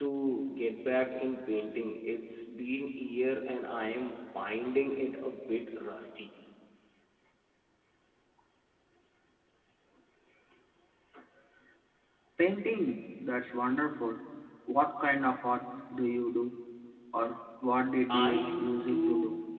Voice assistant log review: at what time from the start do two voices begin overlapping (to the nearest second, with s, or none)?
18 s